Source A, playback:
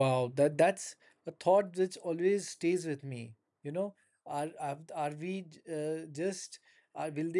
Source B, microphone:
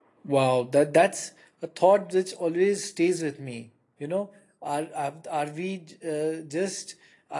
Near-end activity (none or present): none